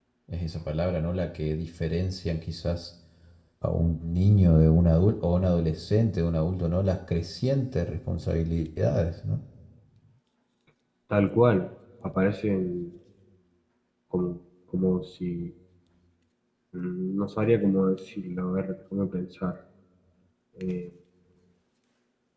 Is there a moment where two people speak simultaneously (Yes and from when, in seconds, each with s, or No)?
No